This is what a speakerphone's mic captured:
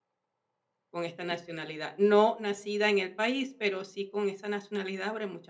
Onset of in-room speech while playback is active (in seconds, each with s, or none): 0.9 s